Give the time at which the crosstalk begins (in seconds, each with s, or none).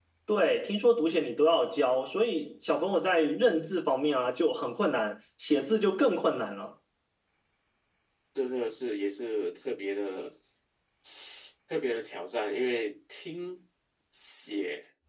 none